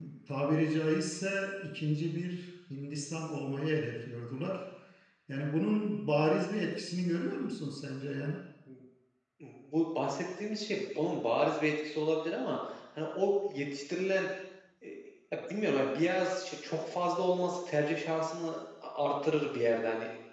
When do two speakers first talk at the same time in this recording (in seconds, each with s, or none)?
none